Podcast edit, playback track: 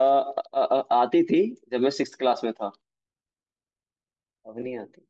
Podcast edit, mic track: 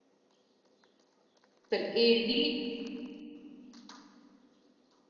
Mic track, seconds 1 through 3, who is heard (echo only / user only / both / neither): user only